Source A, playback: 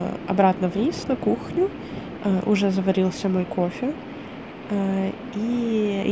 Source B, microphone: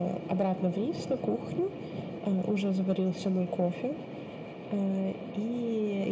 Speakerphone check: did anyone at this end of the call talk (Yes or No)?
No